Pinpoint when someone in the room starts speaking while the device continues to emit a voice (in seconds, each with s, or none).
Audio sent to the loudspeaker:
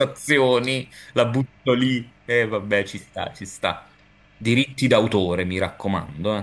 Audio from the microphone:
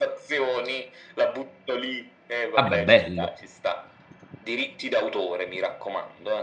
2.6 s